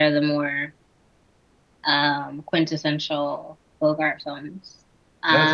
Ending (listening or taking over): taking over